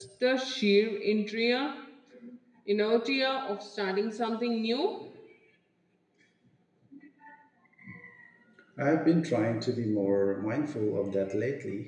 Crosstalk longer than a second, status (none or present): none